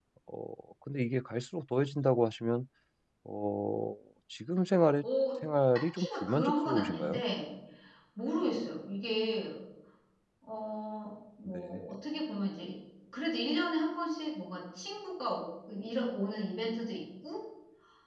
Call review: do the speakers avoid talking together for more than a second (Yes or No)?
No